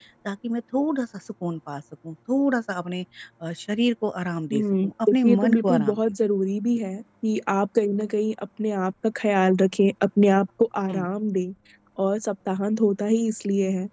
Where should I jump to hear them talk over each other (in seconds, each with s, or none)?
4.5 s